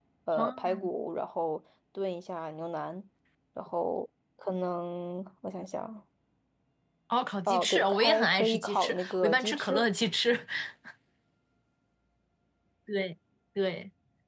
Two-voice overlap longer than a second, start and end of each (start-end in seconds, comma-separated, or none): 7.5-9.8